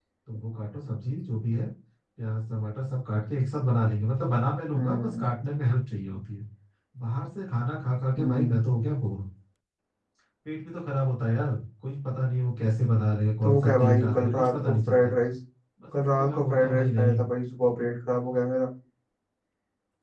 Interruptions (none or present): present